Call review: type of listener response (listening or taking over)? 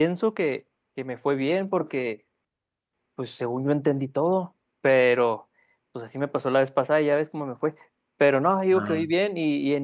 listening